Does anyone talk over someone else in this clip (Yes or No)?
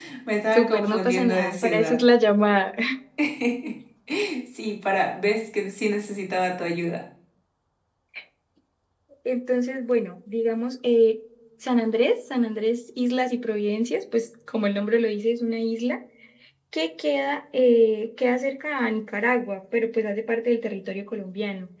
Yes